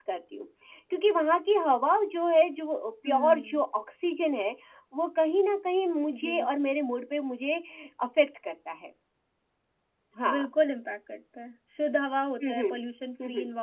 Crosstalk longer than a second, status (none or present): none